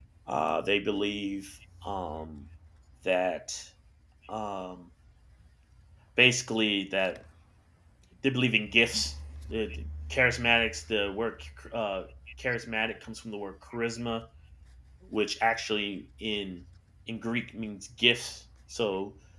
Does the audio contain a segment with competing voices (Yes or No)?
No